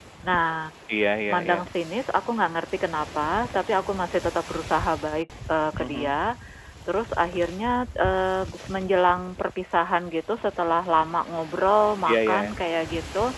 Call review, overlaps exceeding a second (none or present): none